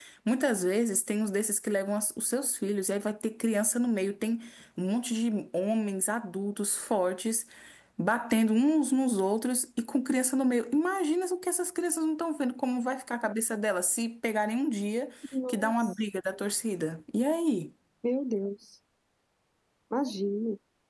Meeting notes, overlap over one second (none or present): none